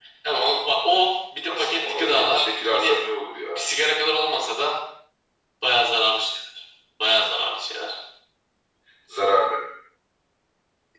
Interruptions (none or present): present